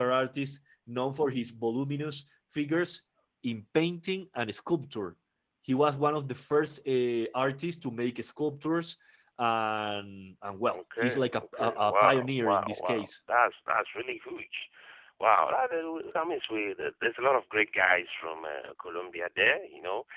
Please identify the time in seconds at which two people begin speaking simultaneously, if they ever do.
11 s

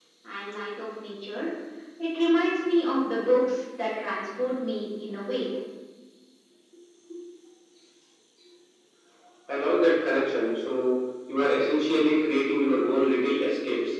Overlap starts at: none

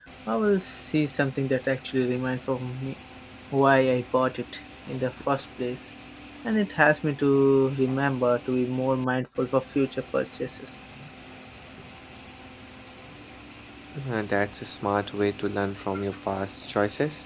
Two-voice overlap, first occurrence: none

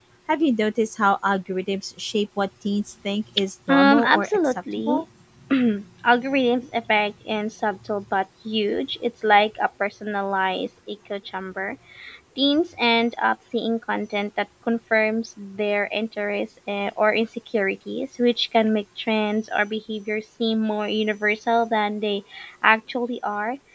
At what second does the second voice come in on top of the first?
4 s

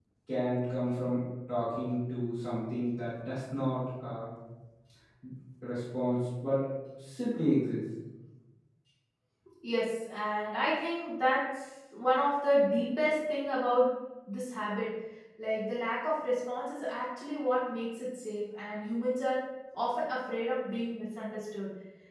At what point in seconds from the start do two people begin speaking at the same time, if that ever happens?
none

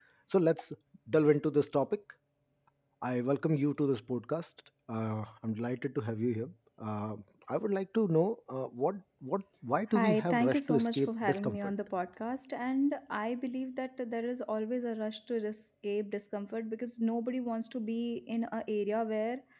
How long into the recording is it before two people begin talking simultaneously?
10 s

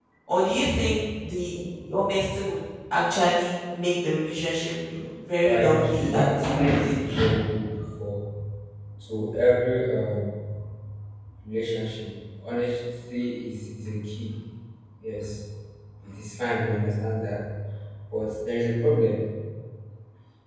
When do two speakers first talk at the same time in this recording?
5 s

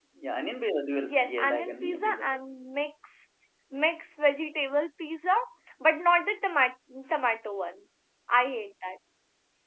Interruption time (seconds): 1 s

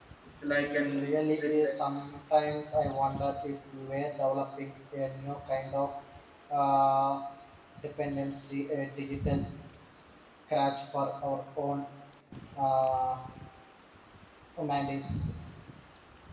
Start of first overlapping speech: 1 s

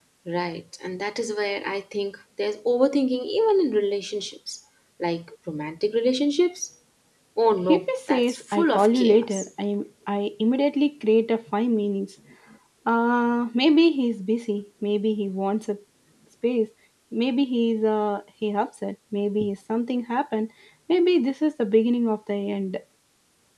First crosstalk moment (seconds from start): 8 s

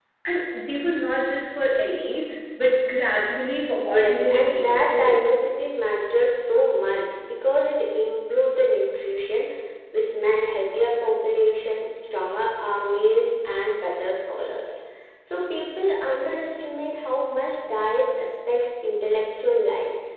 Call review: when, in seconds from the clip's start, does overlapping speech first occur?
4 s

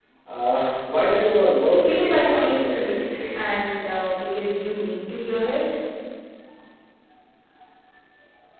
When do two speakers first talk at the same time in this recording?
2 s

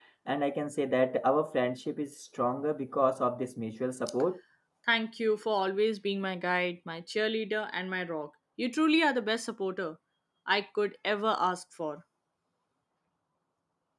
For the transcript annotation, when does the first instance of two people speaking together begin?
none

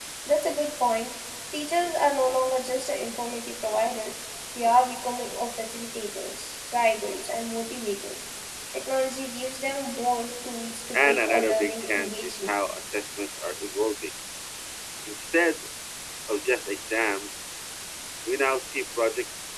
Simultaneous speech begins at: 11 s

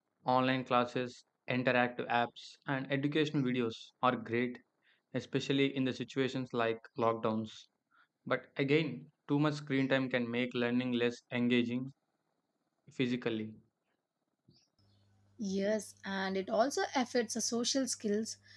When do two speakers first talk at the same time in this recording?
none

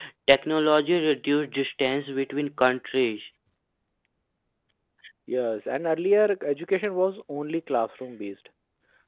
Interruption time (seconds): none

